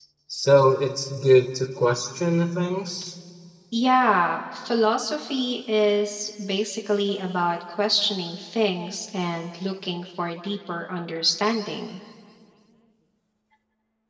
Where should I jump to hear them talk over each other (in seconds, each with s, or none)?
none